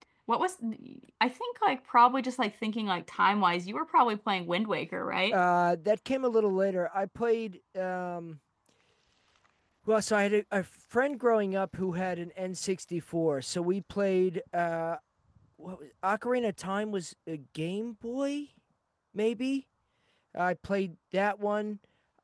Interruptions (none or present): none